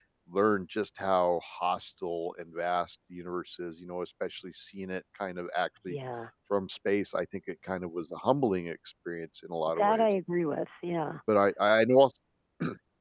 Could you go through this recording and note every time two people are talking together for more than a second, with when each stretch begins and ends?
none

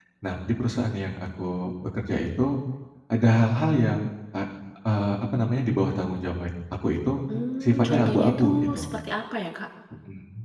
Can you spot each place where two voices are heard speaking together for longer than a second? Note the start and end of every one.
7.6-8.8

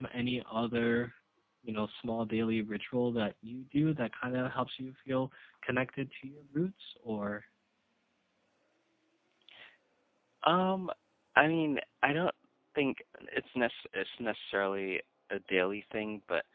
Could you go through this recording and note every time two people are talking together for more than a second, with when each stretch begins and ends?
none

